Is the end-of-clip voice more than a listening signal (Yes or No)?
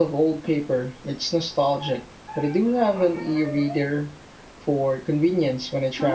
Yes